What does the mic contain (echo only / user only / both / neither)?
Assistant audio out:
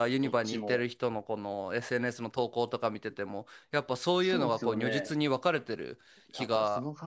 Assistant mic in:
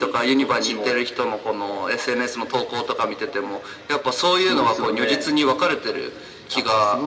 echo only